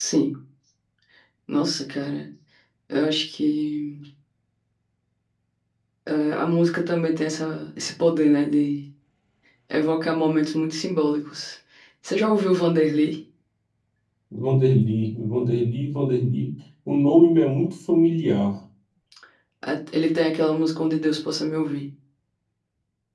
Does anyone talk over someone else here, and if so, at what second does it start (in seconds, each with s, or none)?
none